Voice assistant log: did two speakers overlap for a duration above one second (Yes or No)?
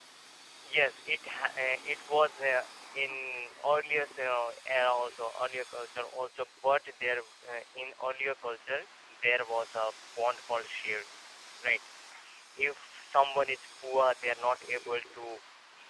No